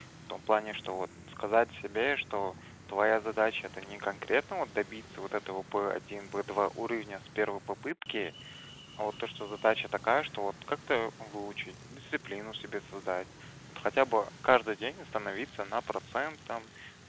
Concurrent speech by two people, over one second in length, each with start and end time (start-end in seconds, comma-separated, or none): none